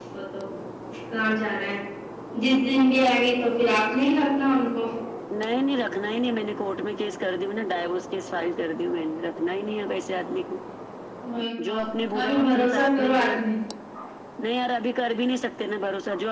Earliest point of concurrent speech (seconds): 11.7 s

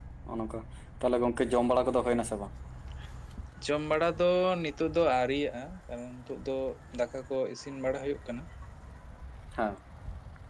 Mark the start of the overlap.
none

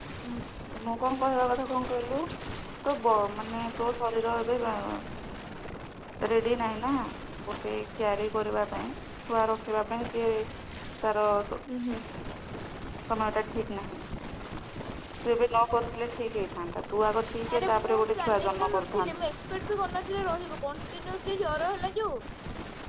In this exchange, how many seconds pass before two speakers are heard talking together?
17.5 s

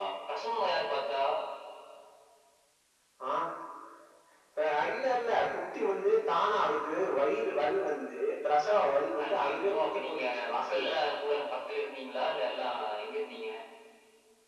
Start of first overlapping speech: 9.2 s

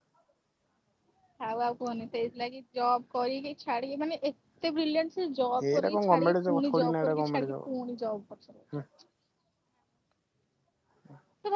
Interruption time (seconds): 5.6 s

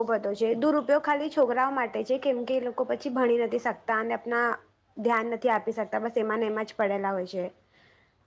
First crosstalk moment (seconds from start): none

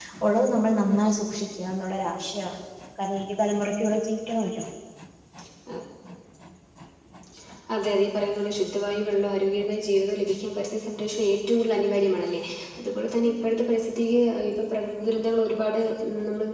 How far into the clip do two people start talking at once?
none

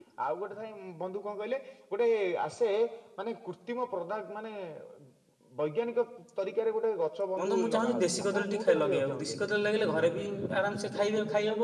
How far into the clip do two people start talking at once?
7.4 s

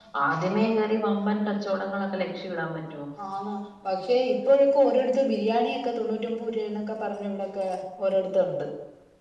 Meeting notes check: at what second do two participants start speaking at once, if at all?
none

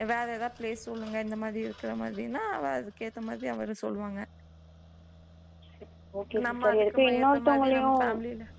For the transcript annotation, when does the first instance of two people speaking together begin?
6.5 s

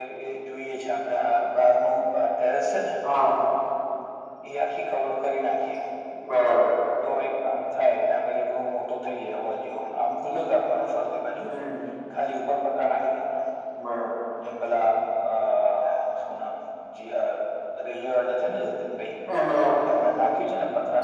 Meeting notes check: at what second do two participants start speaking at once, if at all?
none

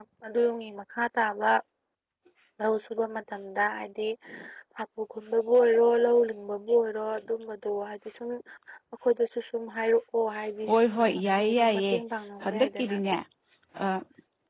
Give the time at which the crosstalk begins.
10.7 s

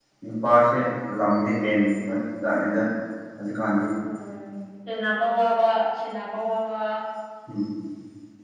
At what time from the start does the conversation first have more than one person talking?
none

